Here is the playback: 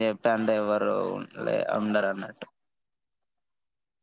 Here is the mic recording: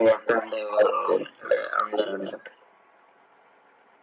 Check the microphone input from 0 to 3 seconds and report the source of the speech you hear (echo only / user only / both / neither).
echo only